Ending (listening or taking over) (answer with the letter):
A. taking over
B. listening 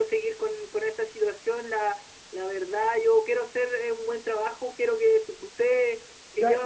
A